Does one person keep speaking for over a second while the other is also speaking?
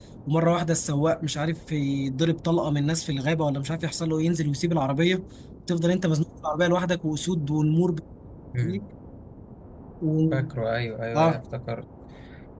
No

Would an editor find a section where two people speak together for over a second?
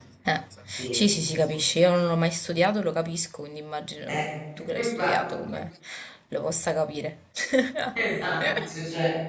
No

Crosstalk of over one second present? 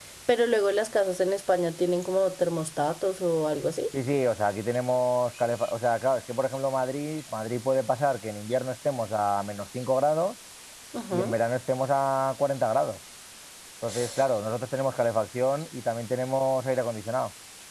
No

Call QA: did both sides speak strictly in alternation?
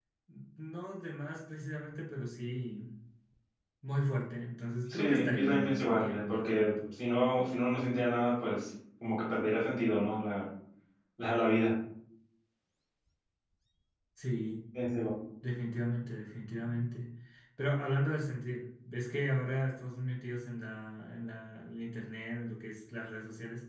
No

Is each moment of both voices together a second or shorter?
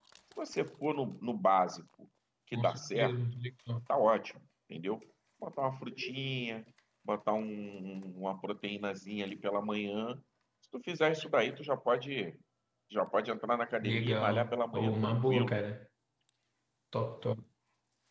No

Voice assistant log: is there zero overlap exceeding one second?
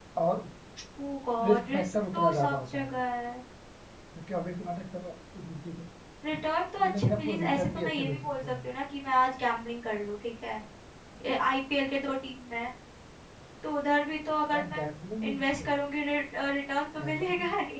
No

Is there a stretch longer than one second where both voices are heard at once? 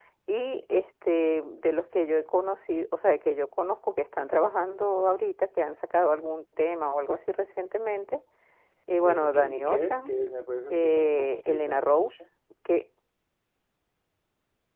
Yes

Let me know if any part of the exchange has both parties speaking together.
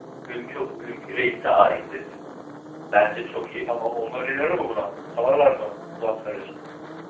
No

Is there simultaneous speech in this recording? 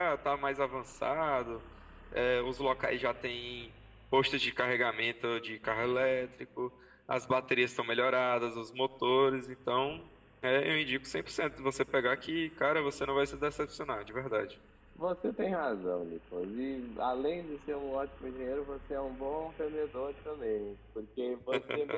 No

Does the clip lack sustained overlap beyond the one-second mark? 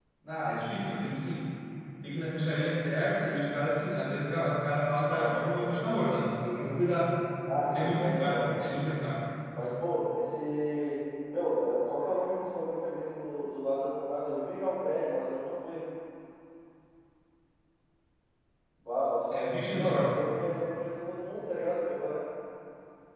No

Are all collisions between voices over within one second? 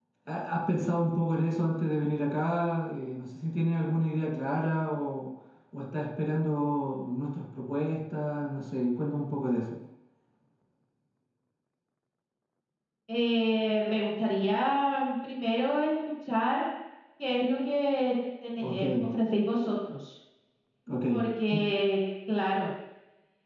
Yes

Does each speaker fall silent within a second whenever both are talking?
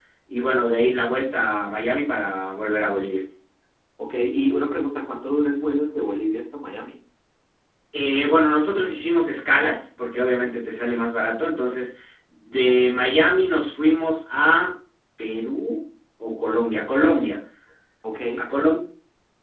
Yes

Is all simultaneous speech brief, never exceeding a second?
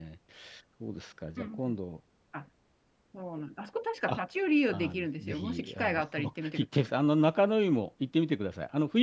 No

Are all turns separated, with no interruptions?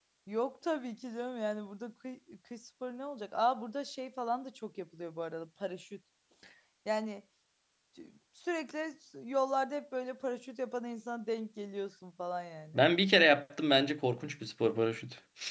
Yes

